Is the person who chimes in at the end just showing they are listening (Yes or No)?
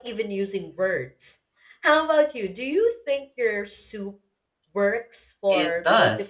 No